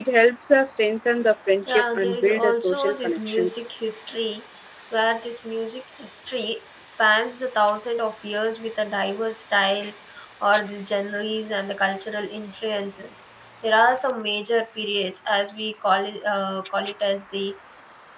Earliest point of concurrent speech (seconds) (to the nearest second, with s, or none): 2 s